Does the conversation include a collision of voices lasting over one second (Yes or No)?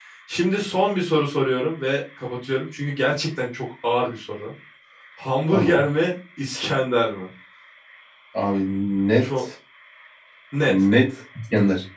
No